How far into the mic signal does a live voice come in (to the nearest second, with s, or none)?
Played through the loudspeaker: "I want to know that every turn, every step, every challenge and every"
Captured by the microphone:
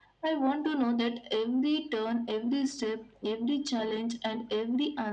none